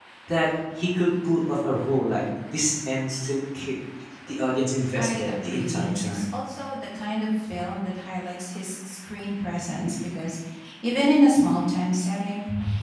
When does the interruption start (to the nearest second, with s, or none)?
5 s